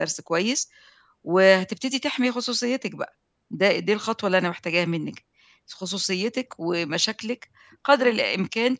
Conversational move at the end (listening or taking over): listening